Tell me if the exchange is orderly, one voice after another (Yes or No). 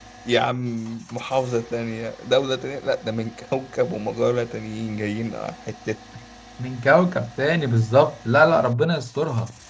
Yes